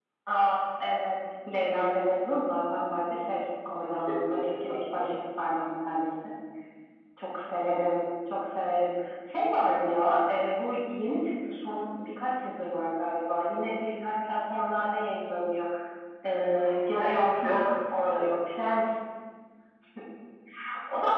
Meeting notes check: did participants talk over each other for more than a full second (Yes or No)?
Yes